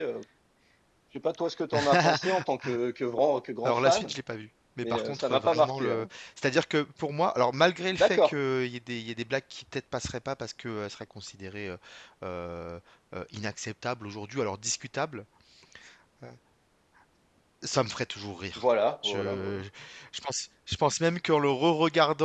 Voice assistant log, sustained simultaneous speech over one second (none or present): present